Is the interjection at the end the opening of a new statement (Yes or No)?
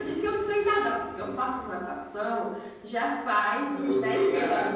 Yes